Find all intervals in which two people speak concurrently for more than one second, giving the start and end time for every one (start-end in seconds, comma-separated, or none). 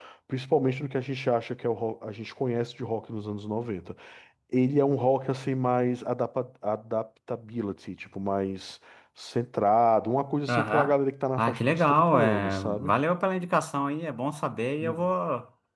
11.4-12.9